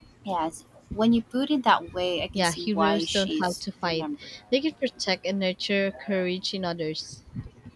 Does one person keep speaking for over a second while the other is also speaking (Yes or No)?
Yes